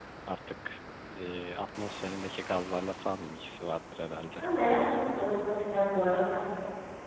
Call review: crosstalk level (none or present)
none